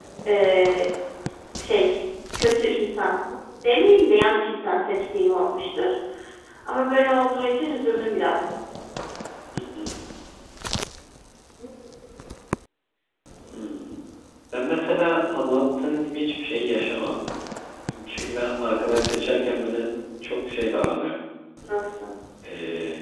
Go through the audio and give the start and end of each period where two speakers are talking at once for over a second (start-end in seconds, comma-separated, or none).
none